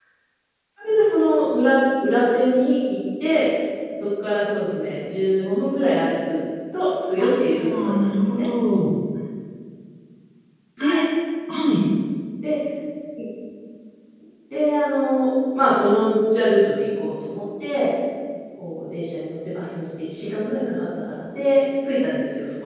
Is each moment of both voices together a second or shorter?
No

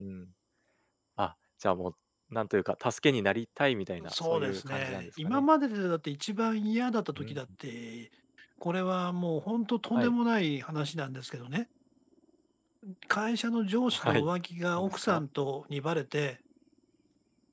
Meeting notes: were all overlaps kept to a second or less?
No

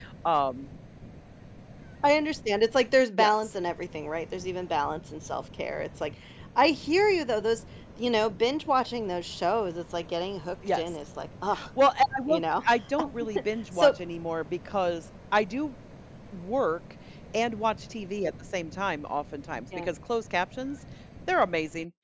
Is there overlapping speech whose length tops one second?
No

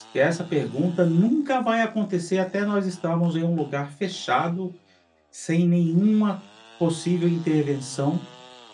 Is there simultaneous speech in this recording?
No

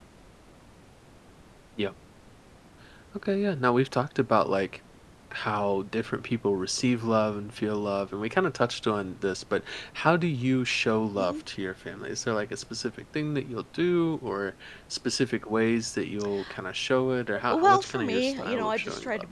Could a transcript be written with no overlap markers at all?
No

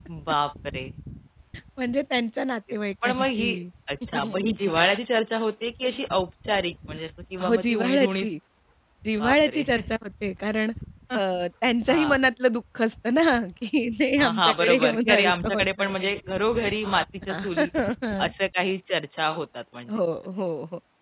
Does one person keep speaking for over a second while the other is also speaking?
Yes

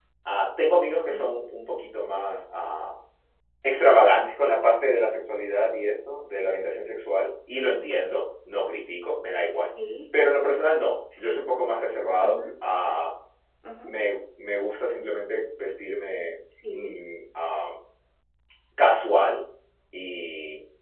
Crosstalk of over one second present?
No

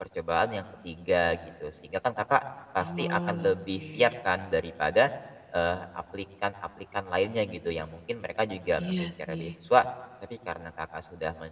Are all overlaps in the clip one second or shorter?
No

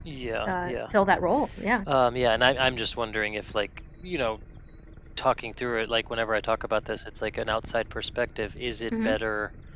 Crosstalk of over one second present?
No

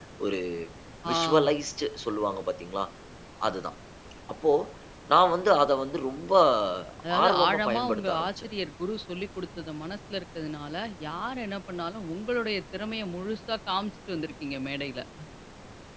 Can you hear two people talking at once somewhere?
Yes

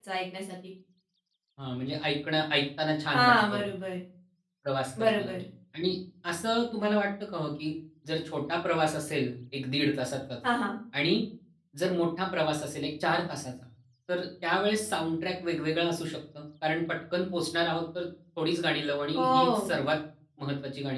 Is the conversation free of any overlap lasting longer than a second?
Yes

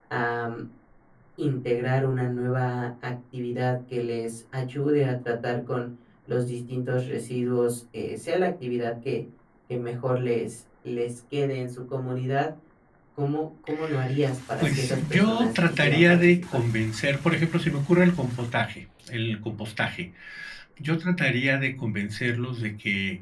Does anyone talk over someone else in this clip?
Yes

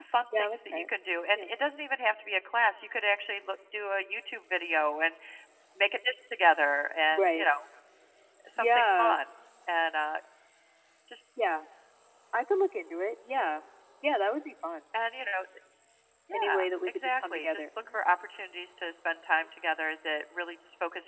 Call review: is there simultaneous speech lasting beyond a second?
Yes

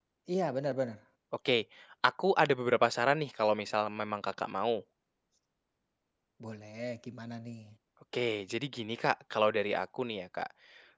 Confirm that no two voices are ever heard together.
Yes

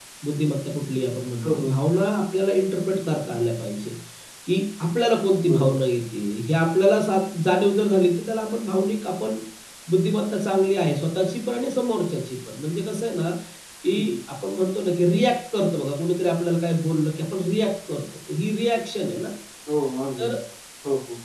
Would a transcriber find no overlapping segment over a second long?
Yes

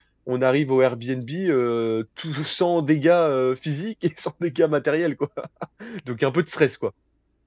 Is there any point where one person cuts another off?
No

